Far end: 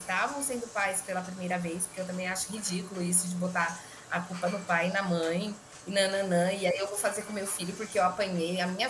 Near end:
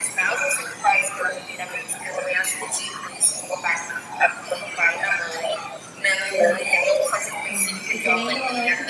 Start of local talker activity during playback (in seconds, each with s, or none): 6.2 s